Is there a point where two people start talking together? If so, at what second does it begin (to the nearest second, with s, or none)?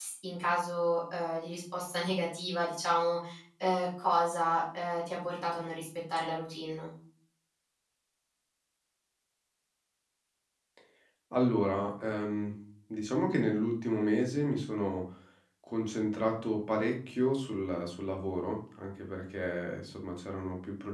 none